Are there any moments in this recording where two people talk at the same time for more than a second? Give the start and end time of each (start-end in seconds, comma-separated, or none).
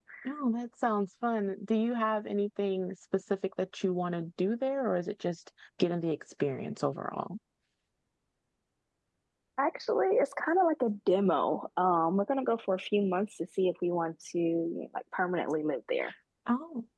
none